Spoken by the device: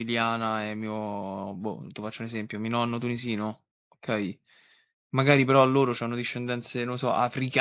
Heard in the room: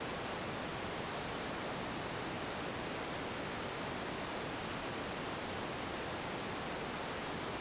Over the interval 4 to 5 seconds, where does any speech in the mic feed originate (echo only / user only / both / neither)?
neither